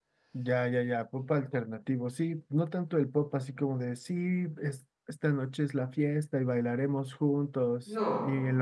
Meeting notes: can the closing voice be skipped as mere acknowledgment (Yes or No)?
Yes